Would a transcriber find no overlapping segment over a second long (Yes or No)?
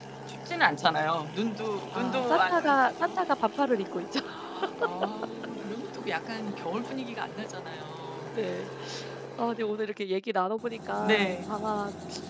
No